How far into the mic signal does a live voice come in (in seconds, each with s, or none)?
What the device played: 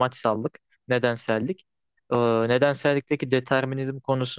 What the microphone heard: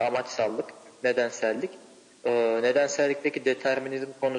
none